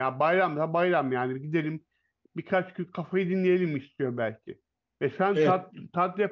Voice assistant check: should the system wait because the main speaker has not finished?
Yes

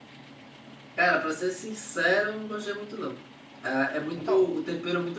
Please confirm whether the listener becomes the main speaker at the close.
No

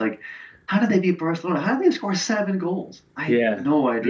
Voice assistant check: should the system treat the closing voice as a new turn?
Yes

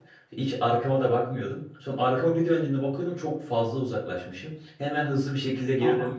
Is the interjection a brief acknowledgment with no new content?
Yes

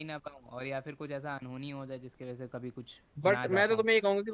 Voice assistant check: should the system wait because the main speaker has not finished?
No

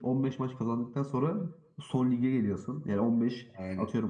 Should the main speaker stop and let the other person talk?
No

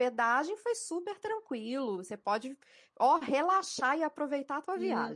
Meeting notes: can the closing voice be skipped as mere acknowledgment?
No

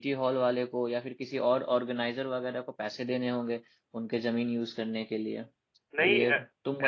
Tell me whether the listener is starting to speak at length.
Yes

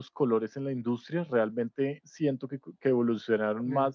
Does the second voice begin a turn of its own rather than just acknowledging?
No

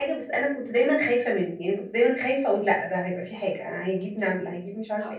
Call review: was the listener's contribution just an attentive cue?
No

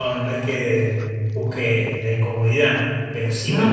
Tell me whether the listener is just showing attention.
Yes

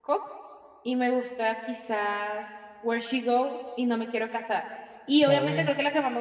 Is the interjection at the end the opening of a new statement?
No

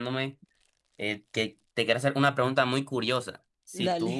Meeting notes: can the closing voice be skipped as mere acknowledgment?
Yes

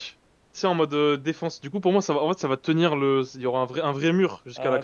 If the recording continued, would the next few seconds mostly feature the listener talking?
Yes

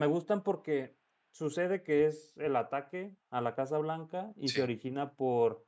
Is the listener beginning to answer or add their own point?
No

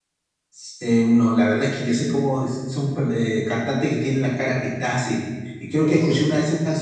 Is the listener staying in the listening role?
Yes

